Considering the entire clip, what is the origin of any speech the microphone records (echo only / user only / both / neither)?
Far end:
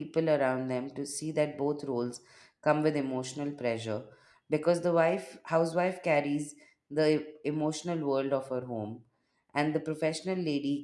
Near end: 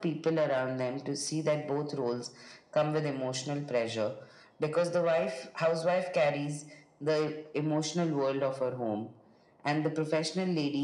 echo only